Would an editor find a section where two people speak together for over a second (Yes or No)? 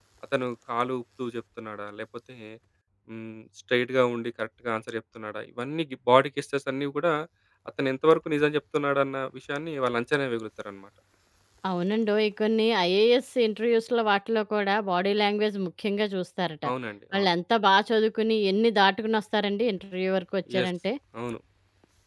No